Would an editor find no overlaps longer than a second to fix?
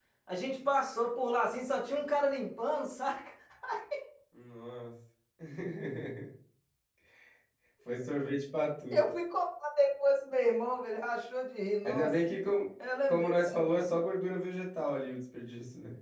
Yes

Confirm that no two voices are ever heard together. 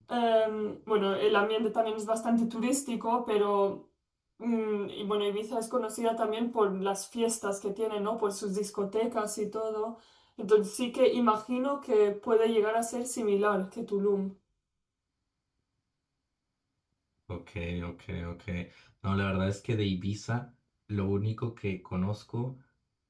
Yes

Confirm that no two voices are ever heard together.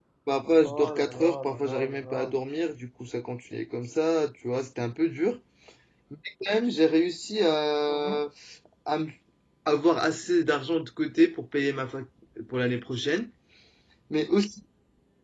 No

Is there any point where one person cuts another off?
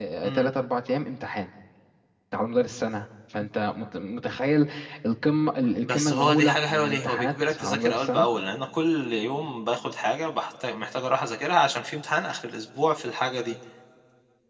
Yes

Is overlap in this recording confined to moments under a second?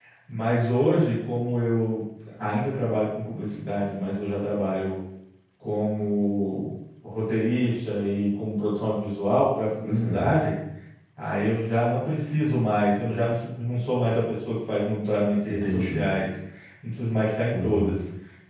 Yes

